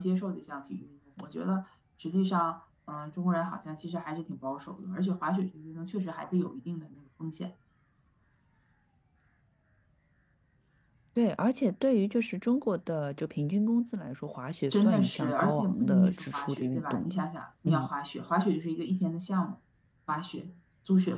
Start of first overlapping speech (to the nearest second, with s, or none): 15 s